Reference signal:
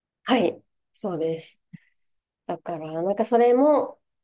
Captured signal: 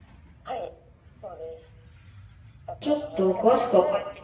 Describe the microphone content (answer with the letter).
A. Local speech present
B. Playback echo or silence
A